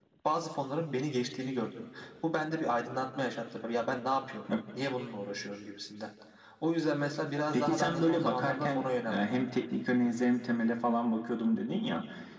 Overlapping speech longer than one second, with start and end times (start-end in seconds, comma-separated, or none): 7.5-8.8